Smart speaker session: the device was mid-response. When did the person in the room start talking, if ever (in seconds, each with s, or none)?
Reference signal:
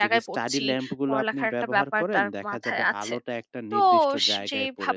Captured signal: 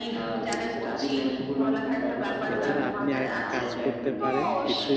2.5 s